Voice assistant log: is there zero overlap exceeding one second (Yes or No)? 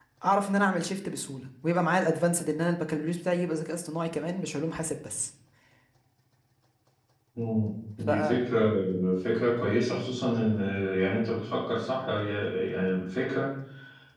Yes